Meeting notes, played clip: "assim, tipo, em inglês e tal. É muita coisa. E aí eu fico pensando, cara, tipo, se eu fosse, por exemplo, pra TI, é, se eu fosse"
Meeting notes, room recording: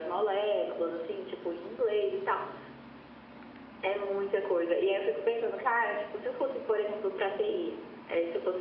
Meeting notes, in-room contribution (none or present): none